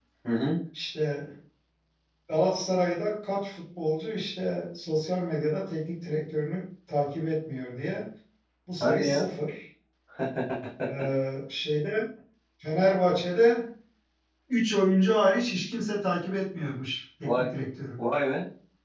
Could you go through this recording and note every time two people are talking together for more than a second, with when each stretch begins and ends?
none

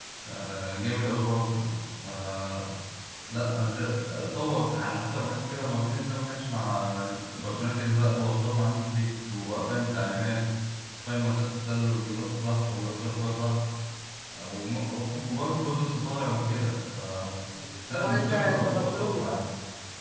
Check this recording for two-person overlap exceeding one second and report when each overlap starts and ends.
17.9-19.4

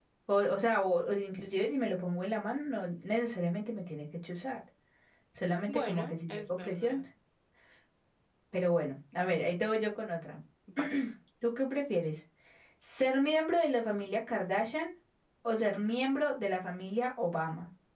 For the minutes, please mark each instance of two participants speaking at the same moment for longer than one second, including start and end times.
5.7-7.0

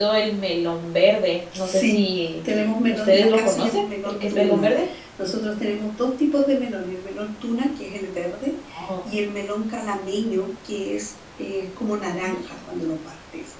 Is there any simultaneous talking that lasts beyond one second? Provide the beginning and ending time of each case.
2.9-4.7

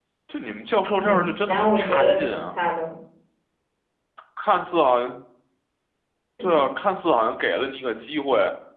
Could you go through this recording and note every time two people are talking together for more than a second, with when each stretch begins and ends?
0.9-2.5

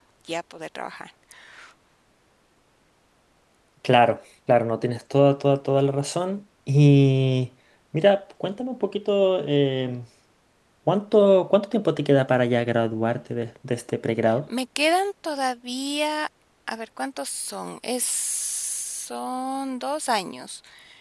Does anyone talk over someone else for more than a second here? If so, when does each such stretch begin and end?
none

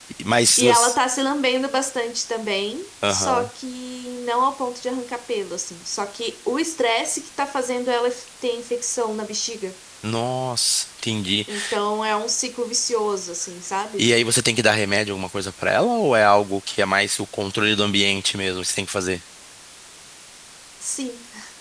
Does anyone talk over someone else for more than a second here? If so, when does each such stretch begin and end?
none

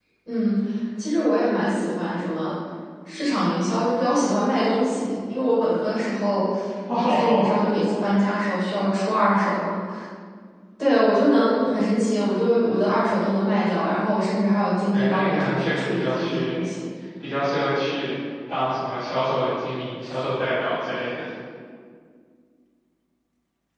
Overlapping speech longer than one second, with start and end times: 14.9-16.6

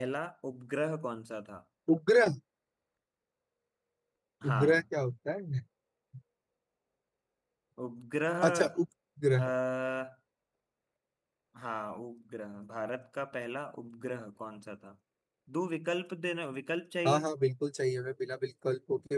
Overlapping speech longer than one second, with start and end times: none

